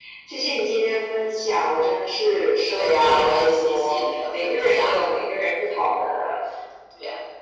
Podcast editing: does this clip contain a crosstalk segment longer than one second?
Yes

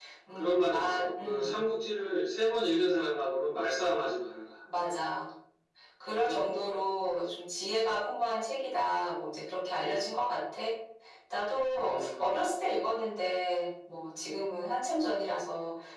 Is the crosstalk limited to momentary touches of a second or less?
No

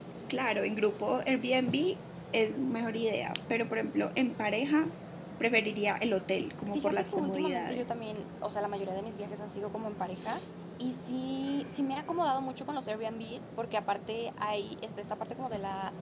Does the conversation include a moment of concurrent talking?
Yes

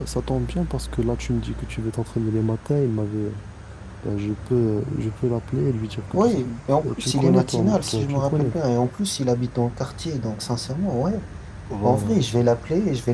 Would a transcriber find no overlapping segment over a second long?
No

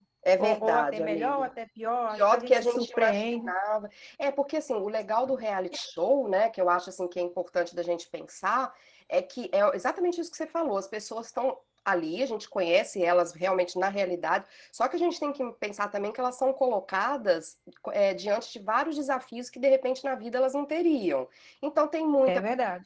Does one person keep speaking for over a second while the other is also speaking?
Yes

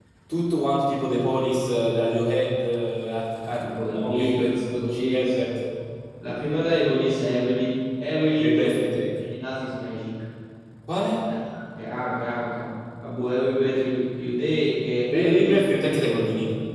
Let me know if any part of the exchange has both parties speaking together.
Yes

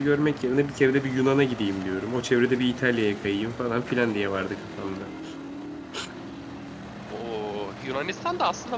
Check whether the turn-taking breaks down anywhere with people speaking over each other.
No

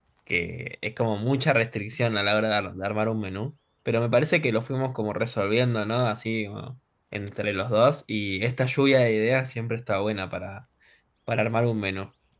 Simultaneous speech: No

